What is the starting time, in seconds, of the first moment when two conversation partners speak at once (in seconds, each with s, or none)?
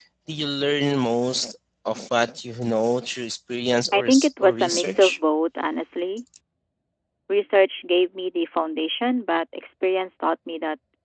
3.9 s